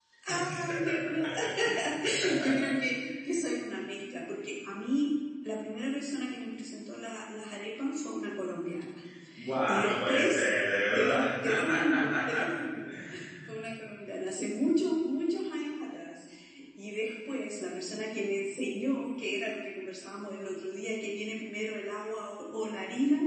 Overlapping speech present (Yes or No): Yes